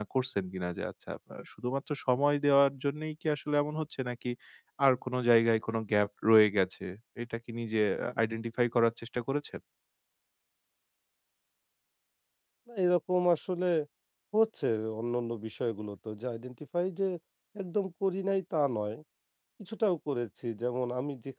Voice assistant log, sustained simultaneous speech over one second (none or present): none